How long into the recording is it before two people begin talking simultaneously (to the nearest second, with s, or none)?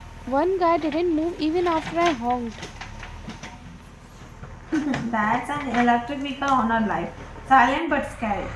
none